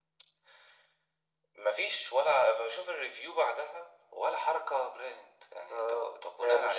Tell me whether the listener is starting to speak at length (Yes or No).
Yes